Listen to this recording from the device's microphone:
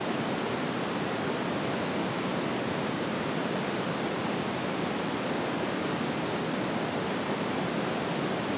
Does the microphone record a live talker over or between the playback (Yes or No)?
No